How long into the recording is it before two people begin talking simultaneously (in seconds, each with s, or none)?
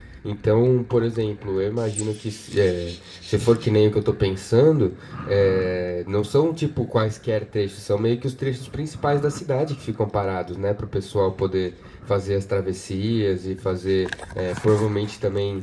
none